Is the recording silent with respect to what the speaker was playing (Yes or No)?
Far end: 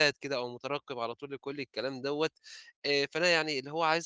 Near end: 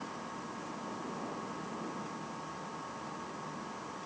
Yes